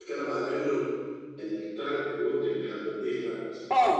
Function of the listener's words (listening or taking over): taking over